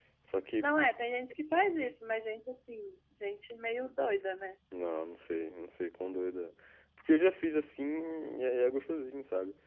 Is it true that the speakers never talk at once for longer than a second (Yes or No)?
Yes